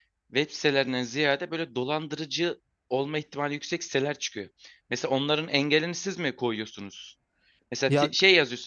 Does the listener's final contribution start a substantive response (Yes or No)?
No